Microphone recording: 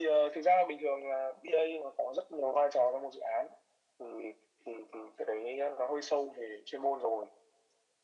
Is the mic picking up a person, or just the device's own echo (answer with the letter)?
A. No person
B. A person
A